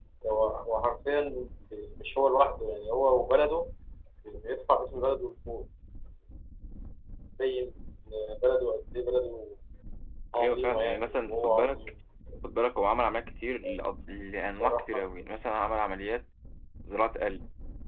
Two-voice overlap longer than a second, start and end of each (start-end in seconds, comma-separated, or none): 10.4-11.8